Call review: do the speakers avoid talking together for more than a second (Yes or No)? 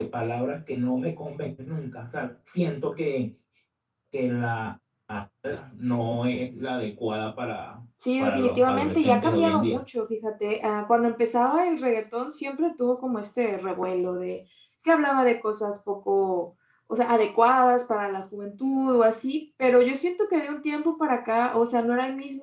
No